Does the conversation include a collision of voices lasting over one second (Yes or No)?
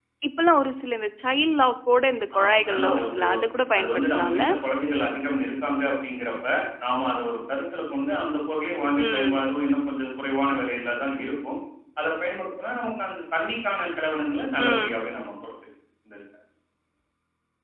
Yes